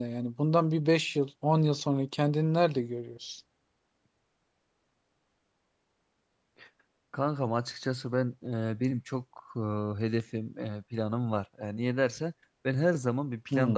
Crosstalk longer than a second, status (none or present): none